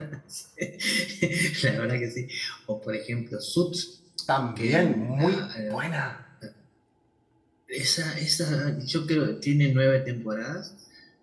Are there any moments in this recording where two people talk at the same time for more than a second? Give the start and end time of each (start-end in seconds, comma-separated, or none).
4.6-5.8